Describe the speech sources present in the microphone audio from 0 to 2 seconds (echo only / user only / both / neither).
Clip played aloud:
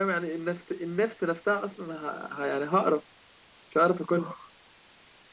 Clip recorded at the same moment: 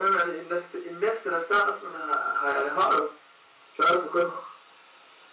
echo only